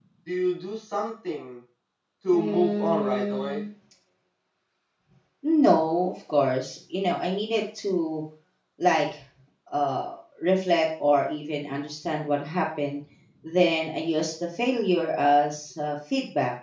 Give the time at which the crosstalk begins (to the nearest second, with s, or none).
2 s